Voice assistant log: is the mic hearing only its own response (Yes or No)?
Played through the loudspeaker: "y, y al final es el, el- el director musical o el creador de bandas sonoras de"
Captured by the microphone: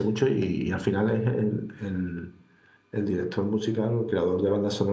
Yes